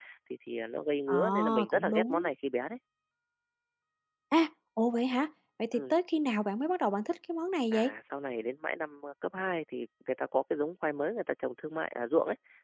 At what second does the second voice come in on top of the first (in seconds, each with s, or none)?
1.1 s